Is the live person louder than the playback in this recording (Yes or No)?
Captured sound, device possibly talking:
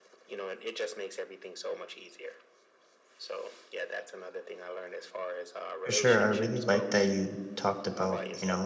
Yes